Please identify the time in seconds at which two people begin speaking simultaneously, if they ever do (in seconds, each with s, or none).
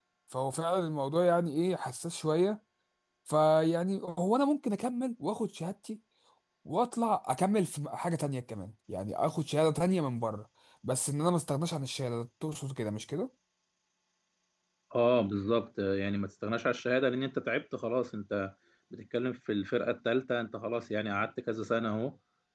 none